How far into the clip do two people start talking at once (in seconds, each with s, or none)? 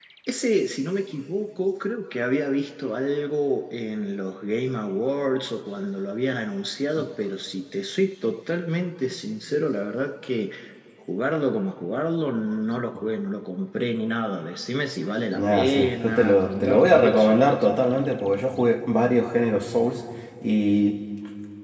15.3 s